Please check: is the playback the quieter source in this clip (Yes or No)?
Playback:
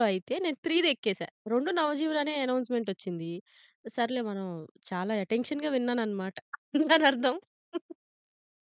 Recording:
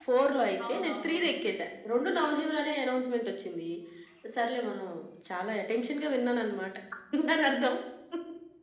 No